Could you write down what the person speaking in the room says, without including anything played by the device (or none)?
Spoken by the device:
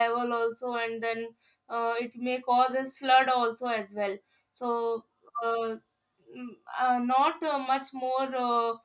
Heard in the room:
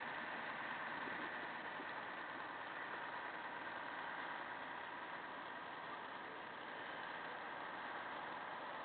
none